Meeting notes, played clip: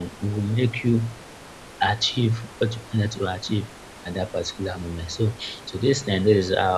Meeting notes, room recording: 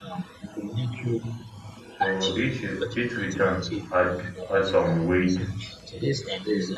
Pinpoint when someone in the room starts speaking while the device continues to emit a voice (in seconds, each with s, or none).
2.0 s